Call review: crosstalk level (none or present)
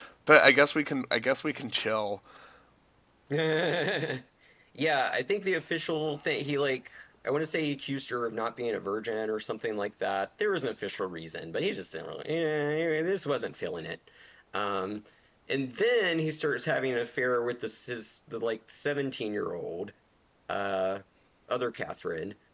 none